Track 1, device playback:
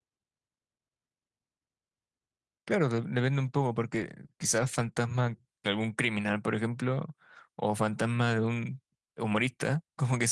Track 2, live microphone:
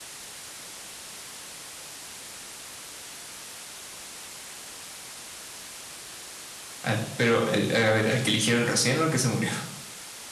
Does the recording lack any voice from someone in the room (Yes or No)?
No